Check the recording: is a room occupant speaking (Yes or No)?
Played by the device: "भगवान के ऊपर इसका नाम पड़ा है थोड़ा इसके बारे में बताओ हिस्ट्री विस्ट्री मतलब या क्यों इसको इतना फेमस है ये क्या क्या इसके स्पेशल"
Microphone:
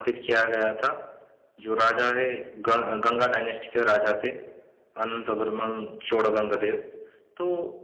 Yes